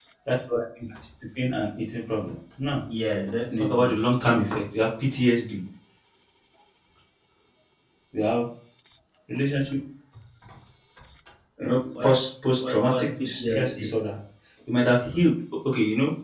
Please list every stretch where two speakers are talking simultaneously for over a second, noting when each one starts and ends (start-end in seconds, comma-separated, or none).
12.6-14.0